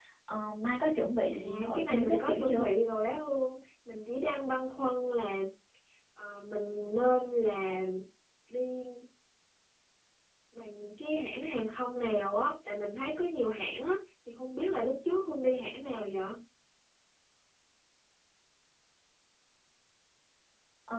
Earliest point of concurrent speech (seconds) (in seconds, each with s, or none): 1.3 s